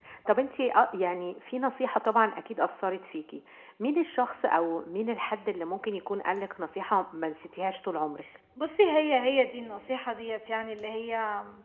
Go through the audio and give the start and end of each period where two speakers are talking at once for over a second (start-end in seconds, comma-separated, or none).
none